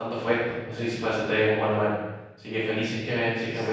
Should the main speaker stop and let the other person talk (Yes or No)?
Yes